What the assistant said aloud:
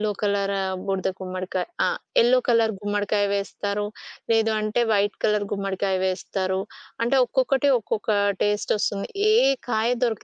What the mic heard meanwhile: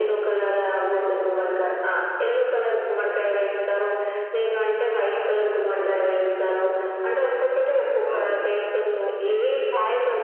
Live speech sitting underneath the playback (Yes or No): Yes